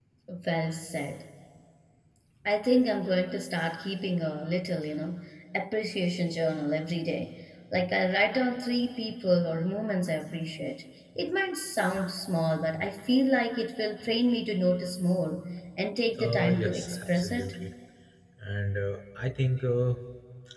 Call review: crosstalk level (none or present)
present